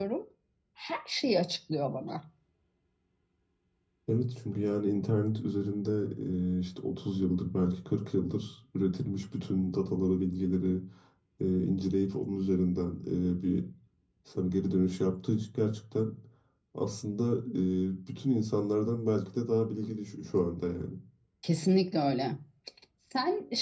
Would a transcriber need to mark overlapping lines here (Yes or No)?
No